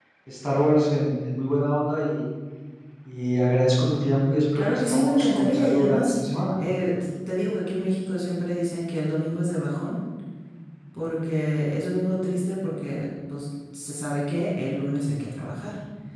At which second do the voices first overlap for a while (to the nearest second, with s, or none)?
5 s